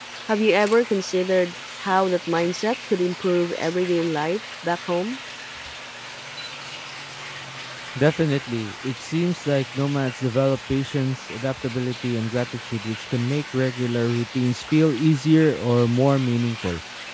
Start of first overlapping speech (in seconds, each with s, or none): none